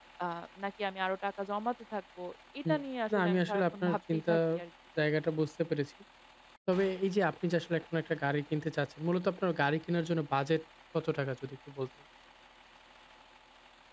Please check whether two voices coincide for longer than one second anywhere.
Yes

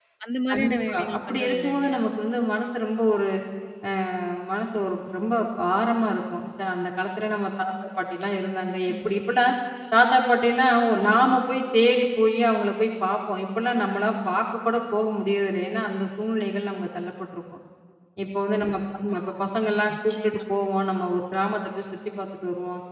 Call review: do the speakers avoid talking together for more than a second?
No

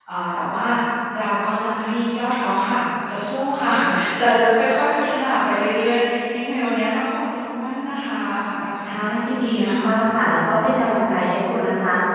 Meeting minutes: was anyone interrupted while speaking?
Yes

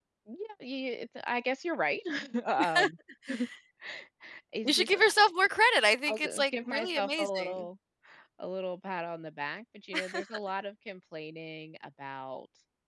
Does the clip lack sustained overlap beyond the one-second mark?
No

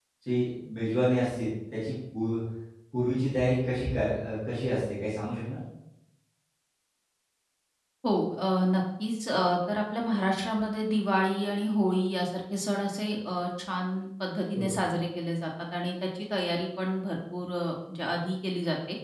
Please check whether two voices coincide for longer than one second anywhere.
No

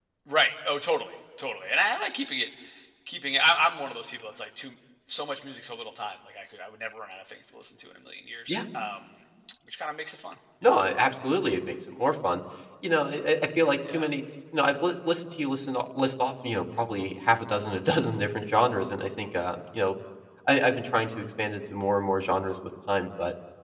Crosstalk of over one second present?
No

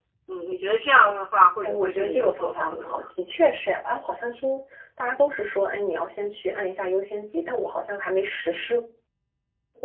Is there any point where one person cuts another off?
Yes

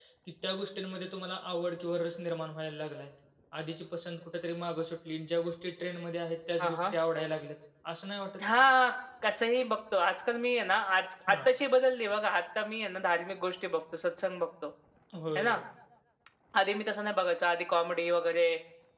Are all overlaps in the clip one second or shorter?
Yes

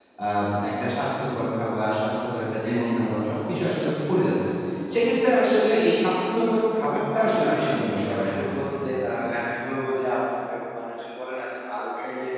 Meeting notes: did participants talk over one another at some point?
Yes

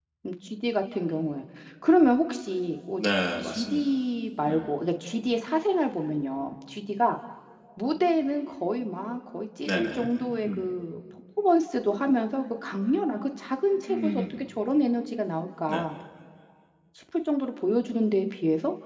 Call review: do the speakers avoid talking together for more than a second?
Yes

